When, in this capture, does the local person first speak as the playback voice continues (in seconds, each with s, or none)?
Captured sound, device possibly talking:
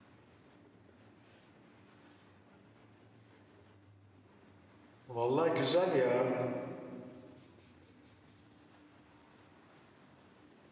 5.1 s